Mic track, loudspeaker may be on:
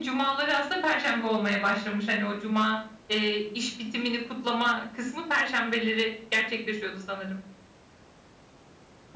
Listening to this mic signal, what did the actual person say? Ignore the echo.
none

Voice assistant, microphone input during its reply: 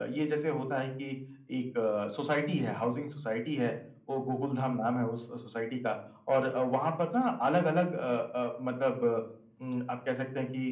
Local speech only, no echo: none

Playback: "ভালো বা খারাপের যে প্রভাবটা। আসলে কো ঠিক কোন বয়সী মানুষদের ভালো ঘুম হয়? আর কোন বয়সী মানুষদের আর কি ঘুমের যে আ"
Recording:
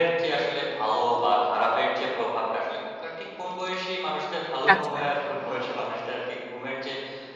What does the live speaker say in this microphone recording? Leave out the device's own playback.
কাজ করে।

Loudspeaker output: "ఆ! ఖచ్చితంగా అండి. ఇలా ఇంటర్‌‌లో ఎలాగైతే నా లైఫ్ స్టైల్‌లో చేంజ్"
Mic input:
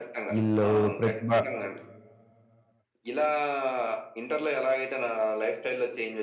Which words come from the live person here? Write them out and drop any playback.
ఇళ్ళు ప్రతిభ

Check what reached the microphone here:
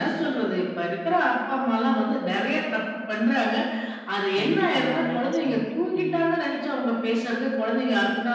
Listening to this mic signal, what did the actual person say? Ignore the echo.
கண்டிப்பாங்க. அழகா சொன்னீங்க. ம்.

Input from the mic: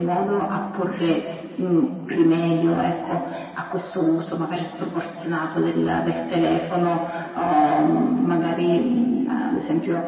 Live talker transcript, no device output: none

